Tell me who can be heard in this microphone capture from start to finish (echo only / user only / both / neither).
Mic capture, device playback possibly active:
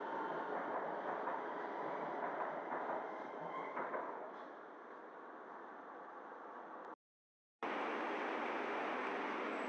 neither